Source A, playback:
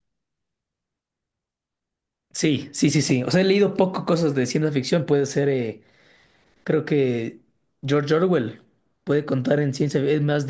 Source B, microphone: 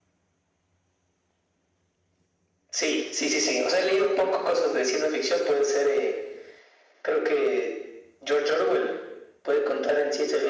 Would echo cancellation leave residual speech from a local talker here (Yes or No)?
No